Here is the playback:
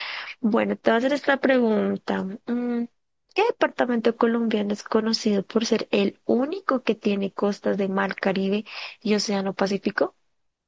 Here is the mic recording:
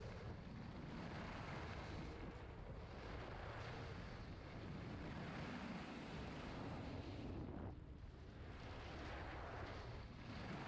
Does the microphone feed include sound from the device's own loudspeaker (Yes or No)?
No